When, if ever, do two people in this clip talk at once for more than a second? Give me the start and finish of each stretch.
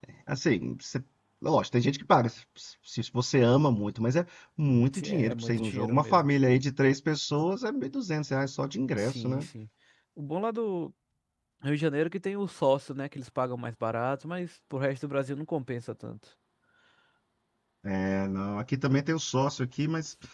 4.9-6.3

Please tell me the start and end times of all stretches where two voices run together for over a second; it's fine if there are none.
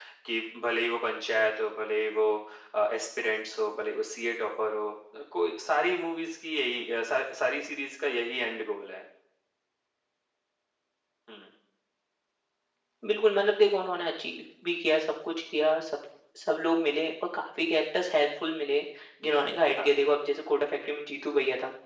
none

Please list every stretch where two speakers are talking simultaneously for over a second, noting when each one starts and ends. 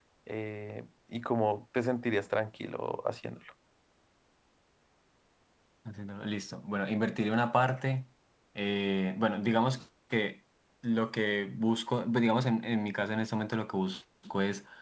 none

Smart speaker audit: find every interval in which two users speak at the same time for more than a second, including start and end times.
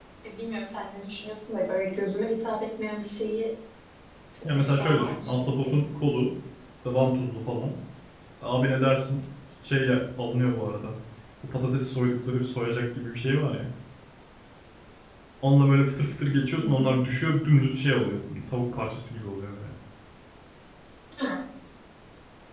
4.6-5.8

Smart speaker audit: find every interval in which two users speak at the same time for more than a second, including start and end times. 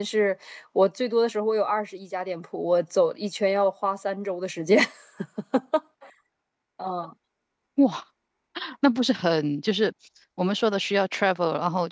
none

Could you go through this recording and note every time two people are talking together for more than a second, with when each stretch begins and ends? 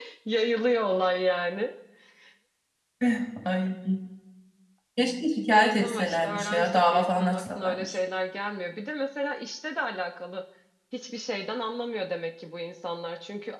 5.5-7.9

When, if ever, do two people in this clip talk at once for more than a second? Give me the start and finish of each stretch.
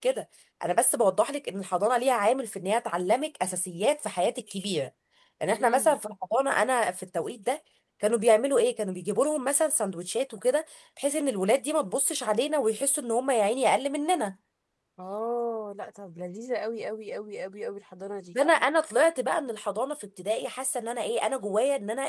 none

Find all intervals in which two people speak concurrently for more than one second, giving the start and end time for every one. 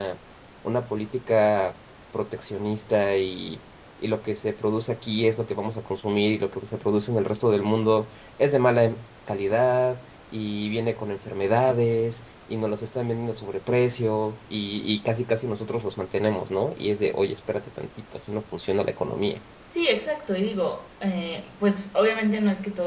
none

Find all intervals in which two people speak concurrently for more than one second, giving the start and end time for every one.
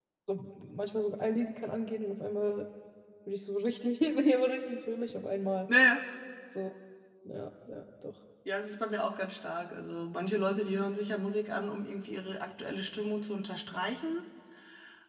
none

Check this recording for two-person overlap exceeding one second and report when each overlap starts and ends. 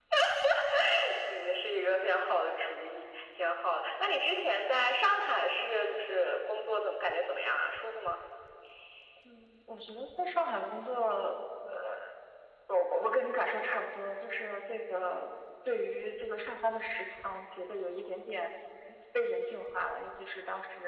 none

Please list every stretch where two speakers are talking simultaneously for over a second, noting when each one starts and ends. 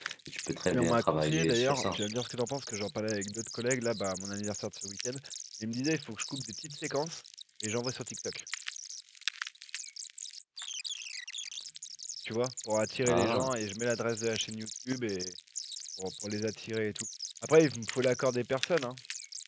0.7-2.0

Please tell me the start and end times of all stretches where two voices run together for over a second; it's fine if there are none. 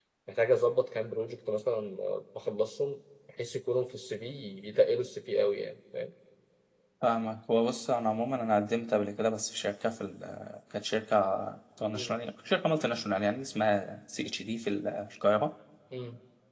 none

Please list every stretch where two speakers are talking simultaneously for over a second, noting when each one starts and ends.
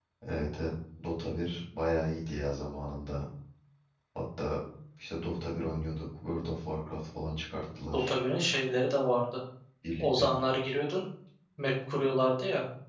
none

